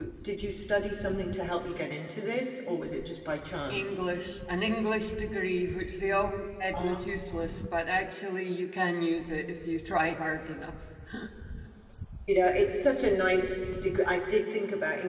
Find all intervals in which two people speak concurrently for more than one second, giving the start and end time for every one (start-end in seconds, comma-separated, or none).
none